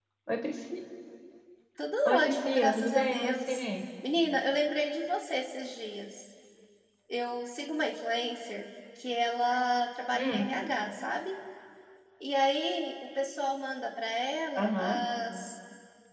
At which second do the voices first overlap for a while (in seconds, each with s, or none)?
2.0 s